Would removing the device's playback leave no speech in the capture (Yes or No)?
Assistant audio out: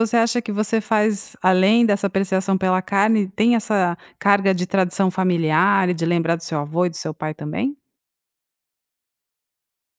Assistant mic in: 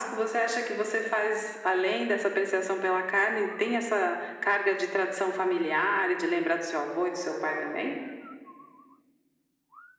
Yes